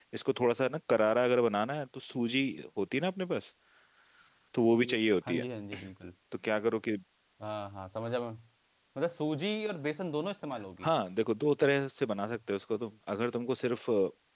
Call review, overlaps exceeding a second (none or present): none